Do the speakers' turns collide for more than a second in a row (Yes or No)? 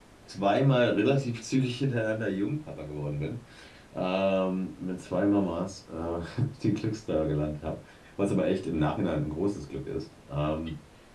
No